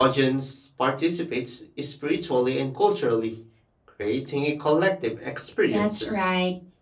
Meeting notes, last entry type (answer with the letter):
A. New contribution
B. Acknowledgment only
A